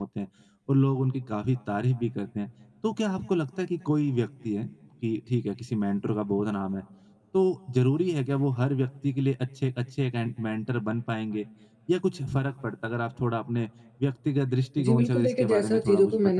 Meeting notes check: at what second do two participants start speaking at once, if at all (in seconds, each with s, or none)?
14.8 s